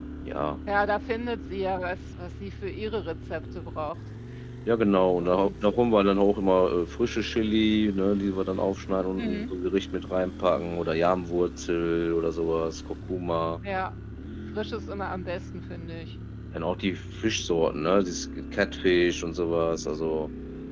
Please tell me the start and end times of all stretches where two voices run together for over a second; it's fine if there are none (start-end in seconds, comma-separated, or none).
none